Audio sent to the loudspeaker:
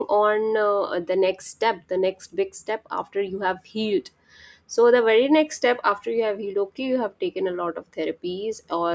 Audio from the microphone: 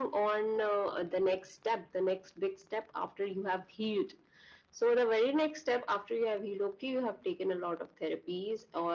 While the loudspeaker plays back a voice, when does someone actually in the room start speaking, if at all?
none

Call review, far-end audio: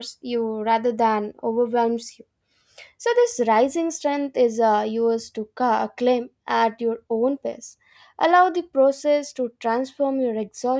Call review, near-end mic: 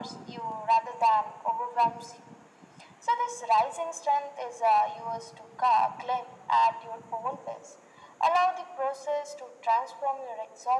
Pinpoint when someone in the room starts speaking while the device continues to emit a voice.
none

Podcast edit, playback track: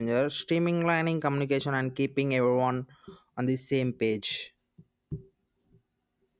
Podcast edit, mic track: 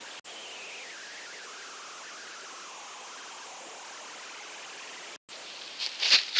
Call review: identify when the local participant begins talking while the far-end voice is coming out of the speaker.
none

